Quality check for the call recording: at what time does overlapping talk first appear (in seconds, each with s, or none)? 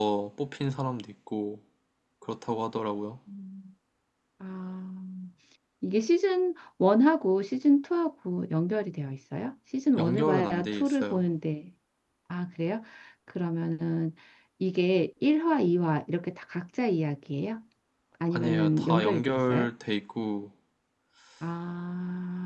10.0 s